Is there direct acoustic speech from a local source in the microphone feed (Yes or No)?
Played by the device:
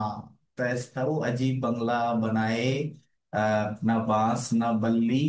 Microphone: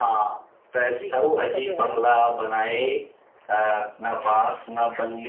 Yes